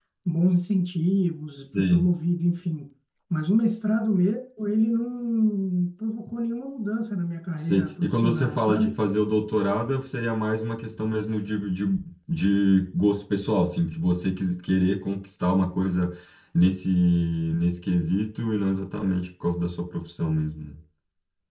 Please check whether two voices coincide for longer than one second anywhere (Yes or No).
Yes